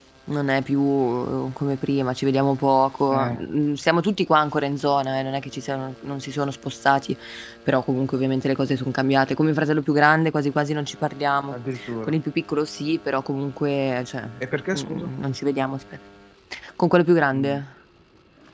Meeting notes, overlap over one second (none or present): none